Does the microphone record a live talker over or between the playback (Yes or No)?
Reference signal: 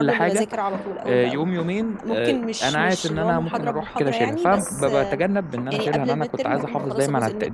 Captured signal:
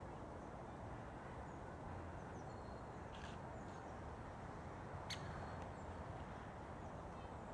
No